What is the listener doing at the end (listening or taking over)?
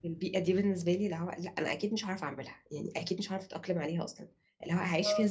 listening